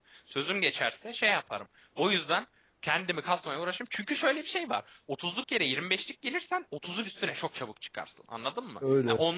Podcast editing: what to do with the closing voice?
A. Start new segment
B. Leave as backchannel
B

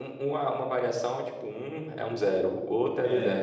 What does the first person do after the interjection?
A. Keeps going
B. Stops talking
B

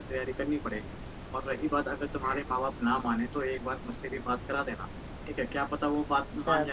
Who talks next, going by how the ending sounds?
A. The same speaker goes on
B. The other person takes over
B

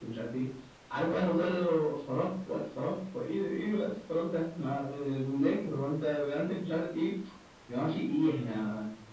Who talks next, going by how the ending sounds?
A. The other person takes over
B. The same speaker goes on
B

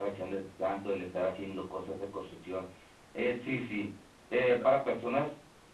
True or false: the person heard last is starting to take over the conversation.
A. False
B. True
A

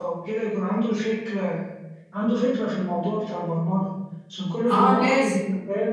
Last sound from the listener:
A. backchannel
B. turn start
B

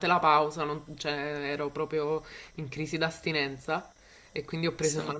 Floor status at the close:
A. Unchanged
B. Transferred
A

